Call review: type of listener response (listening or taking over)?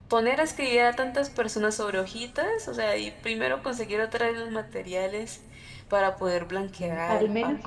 taking over